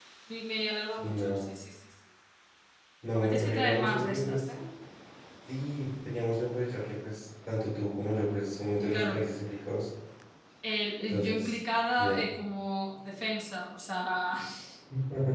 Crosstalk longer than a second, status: present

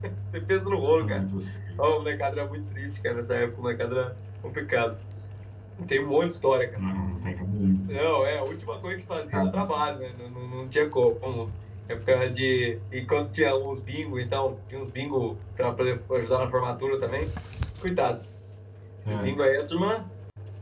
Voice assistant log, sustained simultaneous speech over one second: none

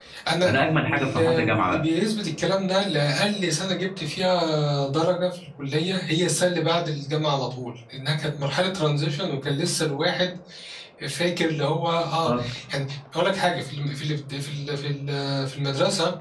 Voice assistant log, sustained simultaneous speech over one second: present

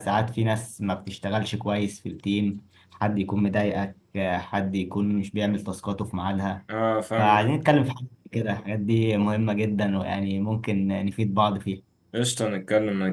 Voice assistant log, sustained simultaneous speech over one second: none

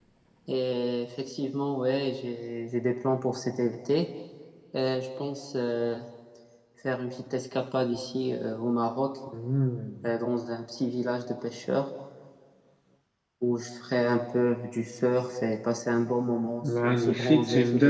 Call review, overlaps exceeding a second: present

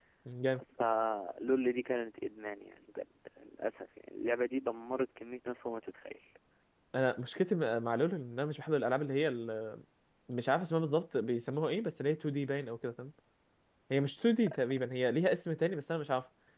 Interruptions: none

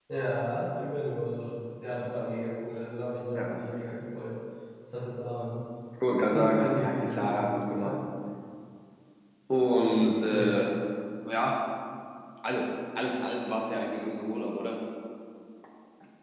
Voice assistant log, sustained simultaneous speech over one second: present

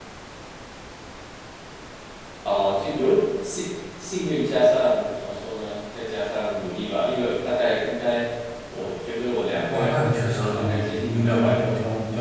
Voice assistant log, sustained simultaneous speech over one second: present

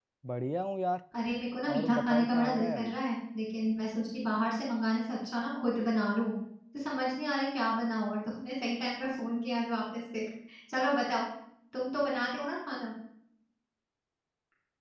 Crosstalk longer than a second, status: present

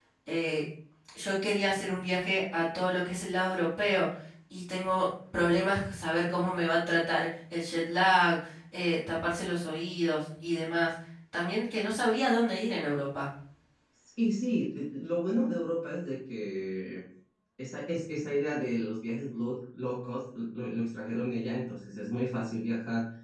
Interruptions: none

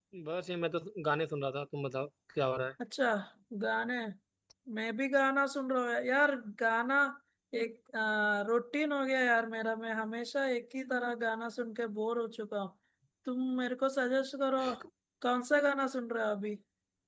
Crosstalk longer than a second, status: none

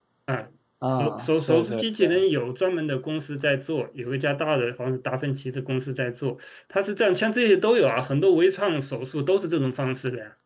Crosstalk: present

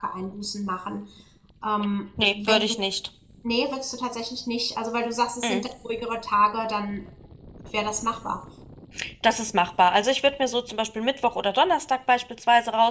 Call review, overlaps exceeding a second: none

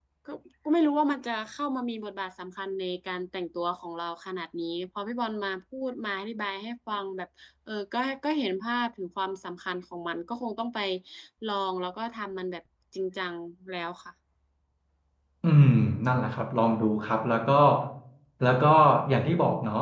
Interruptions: none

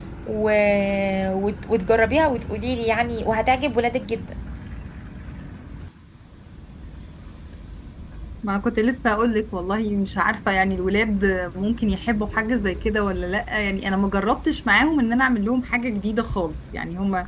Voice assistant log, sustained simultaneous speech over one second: none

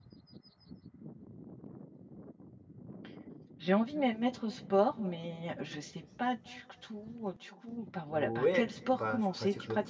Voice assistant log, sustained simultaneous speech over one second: present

